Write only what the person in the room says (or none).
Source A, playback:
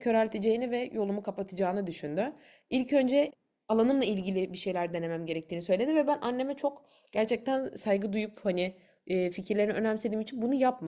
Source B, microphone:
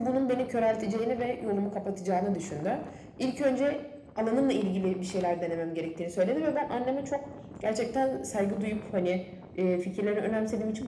none